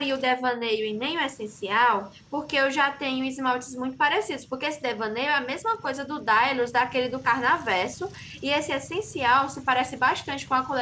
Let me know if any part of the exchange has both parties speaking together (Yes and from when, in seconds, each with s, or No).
No